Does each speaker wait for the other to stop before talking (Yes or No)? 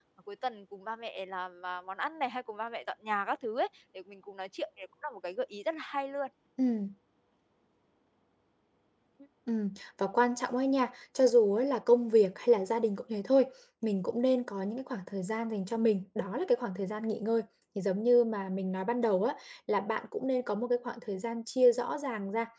Yes